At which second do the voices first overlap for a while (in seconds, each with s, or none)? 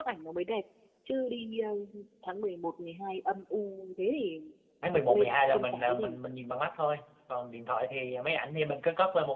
4.9 s